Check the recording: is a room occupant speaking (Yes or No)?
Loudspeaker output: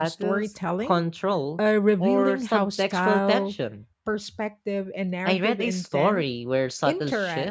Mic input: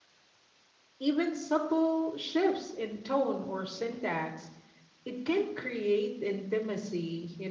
Yes